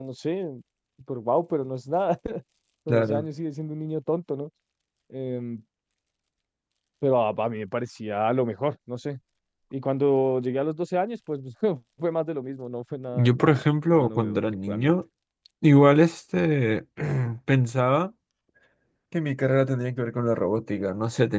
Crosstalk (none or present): present